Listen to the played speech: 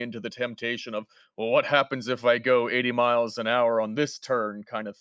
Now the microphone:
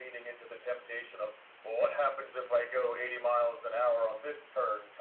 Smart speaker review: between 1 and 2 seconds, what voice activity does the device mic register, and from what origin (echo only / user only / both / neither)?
echo only